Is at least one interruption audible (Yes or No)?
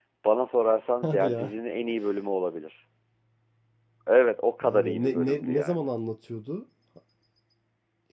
Yes